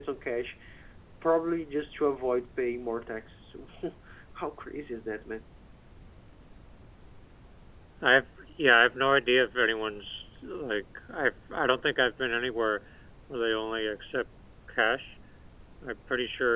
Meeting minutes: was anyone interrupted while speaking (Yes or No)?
No